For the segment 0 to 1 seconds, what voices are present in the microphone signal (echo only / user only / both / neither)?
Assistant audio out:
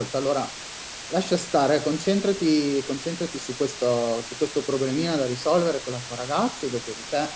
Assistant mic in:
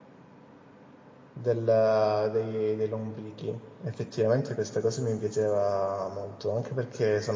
neither